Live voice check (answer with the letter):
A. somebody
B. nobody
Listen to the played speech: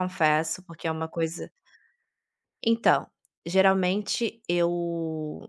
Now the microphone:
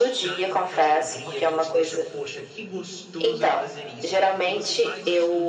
A